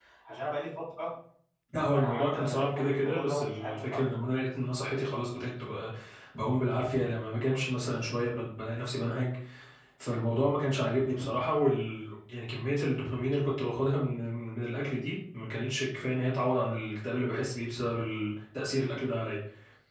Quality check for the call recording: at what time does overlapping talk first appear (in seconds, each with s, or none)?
1.9 s